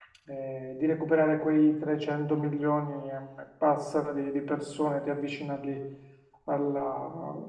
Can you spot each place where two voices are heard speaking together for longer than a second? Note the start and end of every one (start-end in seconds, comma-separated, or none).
none